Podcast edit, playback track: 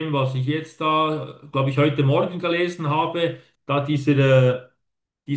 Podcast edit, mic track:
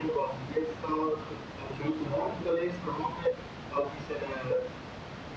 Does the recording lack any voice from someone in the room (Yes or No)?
Yes